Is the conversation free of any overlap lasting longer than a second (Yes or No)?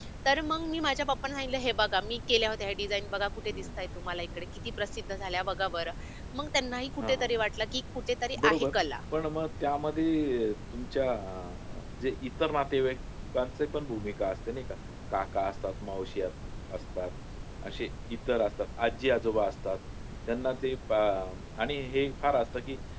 Yes